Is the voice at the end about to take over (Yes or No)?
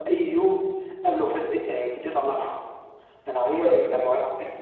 No